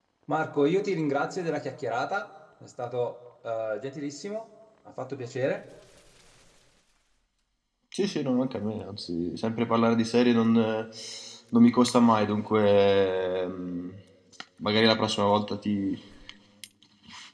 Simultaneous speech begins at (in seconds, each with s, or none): none